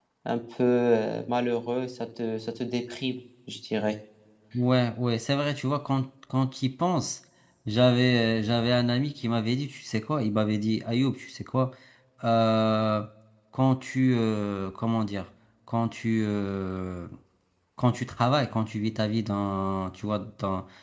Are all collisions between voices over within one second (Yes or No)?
Yes